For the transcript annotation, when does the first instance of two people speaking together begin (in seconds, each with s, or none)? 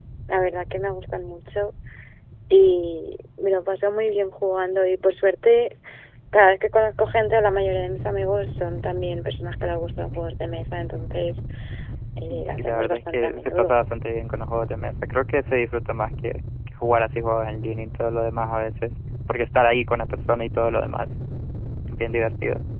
12.3 s